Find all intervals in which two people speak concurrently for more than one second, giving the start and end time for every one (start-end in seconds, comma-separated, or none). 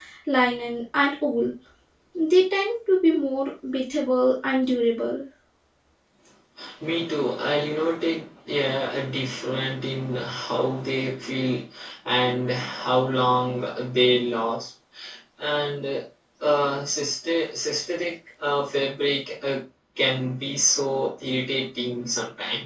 none